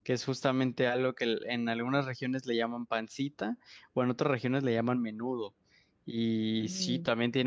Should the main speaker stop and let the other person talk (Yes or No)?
No